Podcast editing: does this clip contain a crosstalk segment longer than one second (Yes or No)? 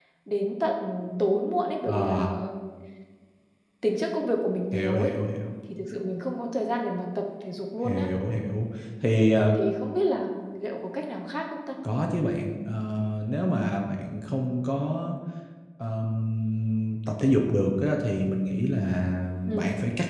No